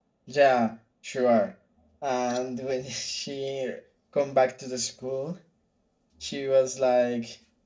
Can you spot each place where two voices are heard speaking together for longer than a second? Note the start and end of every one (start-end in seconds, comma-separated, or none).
none